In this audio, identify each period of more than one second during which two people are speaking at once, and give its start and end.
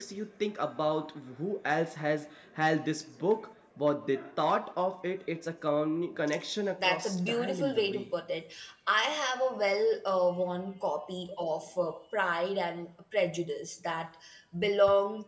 6.8-8.1

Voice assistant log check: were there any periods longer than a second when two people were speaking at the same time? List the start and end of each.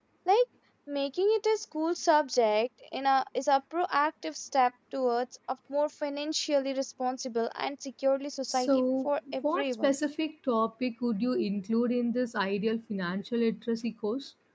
8.5-9.9

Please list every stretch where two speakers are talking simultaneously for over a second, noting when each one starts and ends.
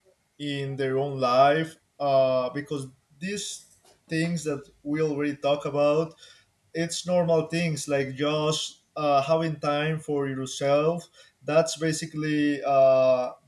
none

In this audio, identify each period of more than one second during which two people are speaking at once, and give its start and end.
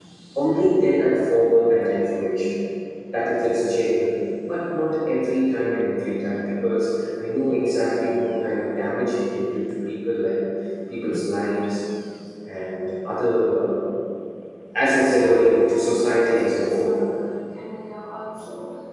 15.0-17.0

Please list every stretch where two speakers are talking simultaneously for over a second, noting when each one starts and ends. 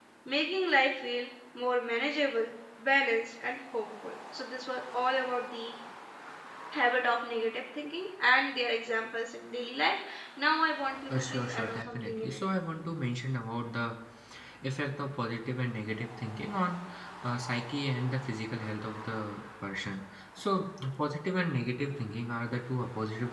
11.1-12.4

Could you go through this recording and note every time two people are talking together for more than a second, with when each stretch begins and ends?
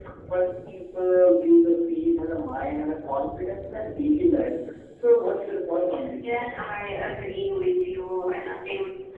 none

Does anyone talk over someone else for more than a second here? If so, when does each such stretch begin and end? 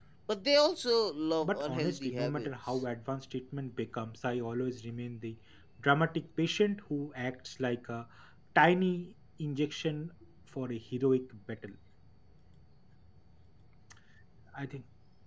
1.4-2.8

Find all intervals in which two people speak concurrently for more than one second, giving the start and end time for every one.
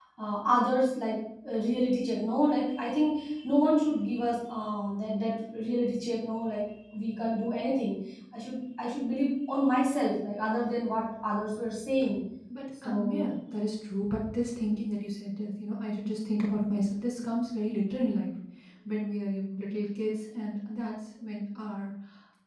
none

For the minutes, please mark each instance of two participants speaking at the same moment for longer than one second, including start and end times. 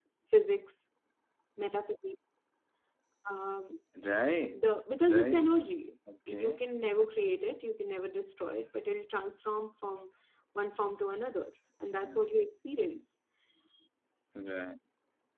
none

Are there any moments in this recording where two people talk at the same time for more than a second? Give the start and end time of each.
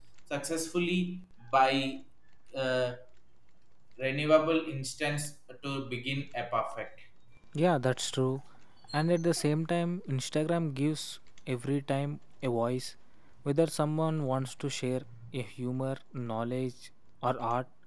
none

